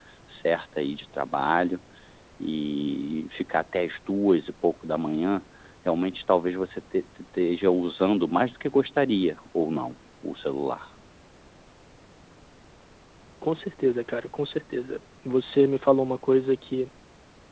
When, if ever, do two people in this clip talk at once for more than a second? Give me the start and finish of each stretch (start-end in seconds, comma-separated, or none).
none